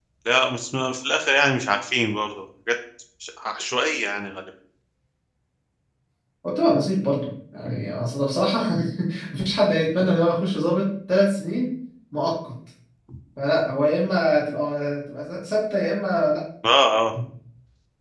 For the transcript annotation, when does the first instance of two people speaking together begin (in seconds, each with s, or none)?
none